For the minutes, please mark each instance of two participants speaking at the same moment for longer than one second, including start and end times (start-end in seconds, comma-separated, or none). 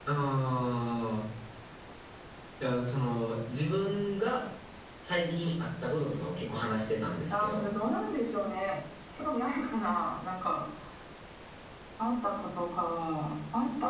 none